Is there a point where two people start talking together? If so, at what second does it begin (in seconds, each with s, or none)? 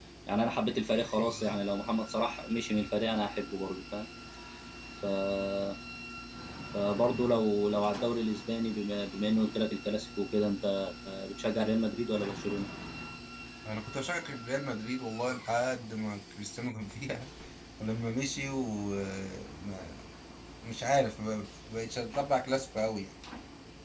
none